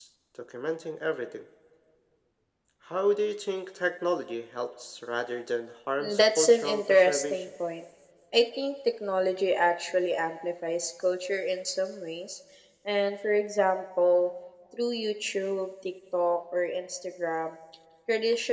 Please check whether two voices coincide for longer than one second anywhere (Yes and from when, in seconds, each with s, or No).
Yes, from 6.0 s